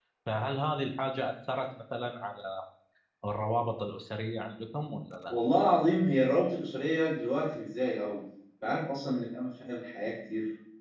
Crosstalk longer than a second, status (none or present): none